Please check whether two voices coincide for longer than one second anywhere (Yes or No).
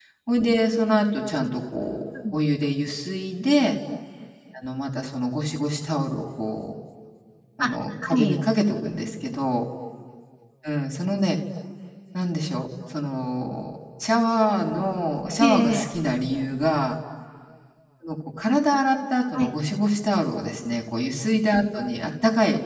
No